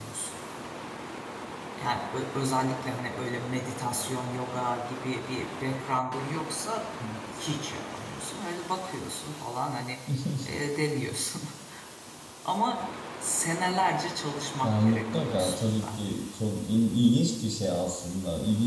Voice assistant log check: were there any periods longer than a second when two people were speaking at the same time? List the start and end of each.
14.6-15.9

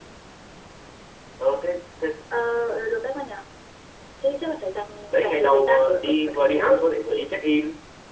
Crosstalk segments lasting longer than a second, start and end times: 5.1-7.1

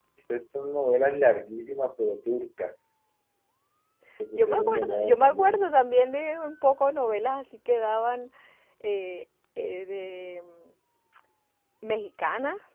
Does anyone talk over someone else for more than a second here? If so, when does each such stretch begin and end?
4.3-5.7

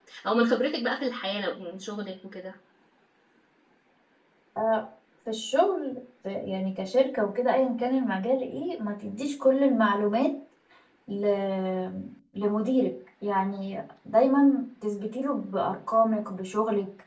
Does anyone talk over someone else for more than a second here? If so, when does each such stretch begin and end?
none

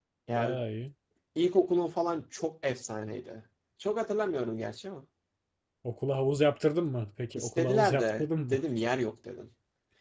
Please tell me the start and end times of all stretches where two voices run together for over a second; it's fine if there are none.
7.3-8.6

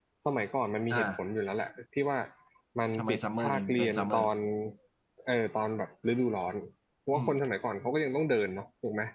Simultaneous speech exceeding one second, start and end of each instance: 3.0-4.3

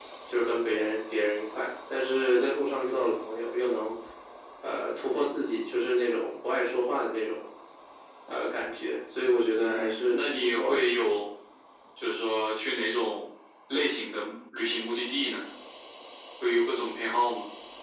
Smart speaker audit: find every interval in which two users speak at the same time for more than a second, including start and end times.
9.6-10.8

